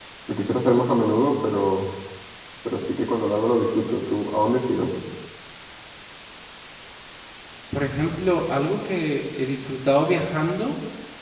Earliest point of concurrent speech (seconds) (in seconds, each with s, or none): none